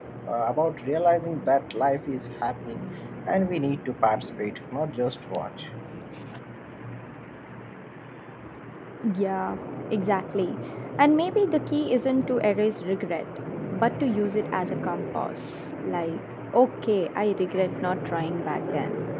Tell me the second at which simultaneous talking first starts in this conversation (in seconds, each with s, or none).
none